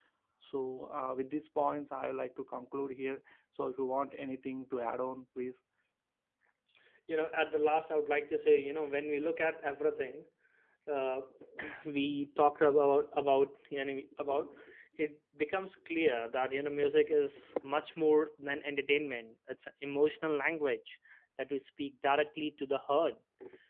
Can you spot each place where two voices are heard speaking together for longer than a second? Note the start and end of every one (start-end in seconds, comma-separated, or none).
none